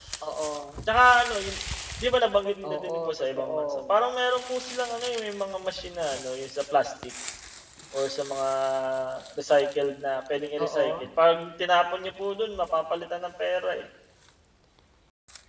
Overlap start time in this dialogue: 2.7 s

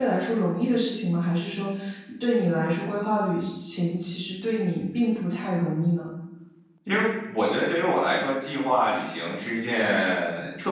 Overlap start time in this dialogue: none

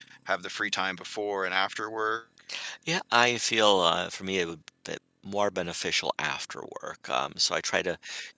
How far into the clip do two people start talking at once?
none

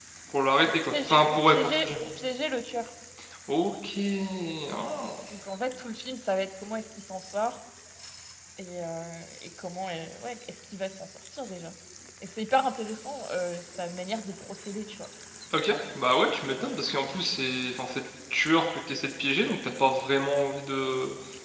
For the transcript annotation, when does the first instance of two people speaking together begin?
0.7 s

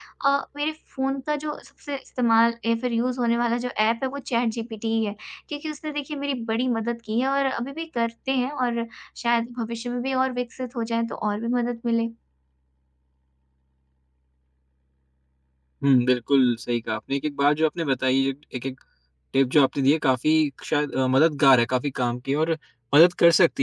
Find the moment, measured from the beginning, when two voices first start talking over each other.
none

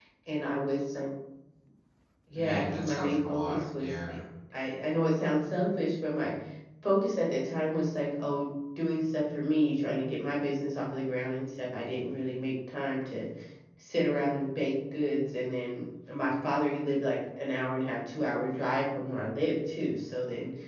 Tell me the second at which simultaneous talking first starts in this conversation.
2.4 s

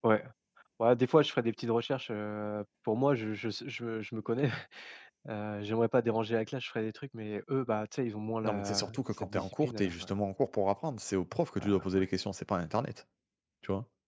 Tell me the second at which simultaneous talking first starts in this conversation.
8.4 s

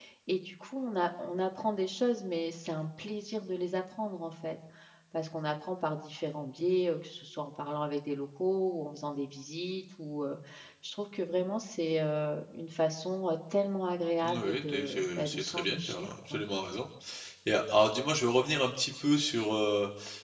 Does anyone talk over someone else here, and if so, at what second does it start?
14.2 s

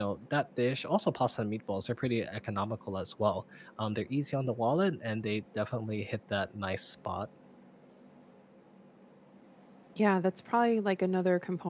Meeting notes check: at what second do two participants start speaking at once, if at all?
none

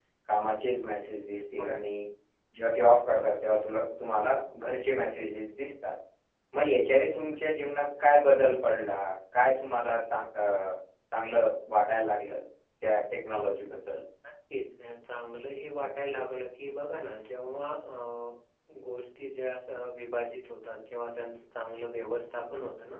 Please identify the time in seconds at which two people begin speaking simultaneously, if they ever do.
none

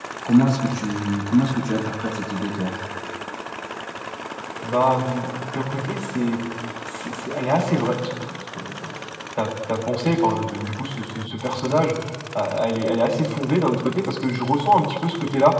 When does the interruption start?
none

